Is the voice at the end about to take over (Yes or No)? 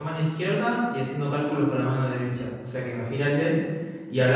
No